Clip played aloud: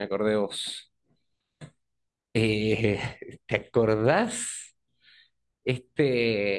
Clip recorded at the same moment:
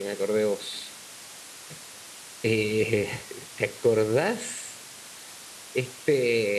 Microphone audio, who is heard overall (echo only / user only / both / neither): echo only